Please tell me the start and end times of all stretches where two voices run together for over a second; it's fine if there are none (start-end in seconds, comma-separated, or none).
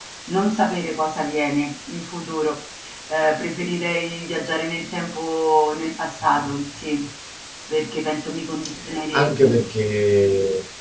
none